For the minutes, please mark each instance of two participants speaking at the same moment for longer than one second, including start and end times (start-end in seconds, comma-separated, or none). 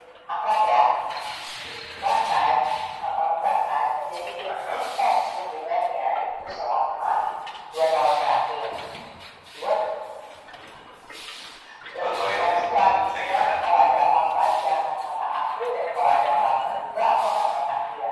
12.0-13.5